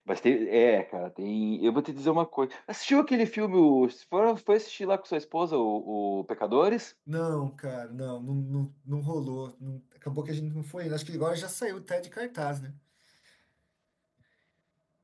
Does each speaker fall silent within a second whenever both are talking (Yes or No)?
Yes